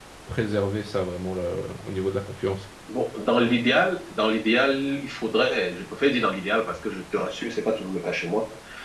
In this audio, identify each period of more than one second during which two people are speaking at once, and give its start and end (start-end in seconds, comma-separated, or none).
none